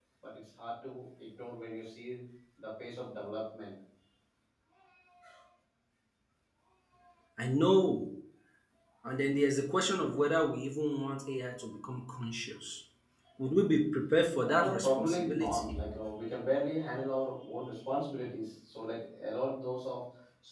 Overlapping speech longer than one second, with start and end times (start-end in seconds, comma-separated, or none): 14.4-15.8